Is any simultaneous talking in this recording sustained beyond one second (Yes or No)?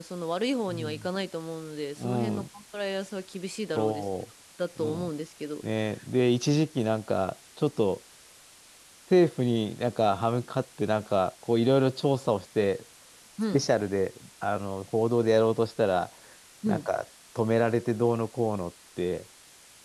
No